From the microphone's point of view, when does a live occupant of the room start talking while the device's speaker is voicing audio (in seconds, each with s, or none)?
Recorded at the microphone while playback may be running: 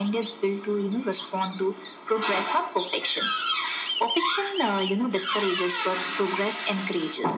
none